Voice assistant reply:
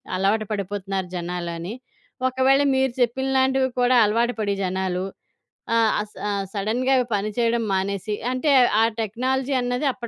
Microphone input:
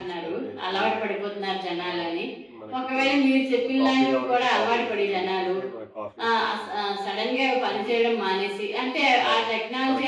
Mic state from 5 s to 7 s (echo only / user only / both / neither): both